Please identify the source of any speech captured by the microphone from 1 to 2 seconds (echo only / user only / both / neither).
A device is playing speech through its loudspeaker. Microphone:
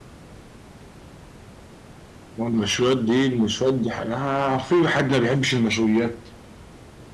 neither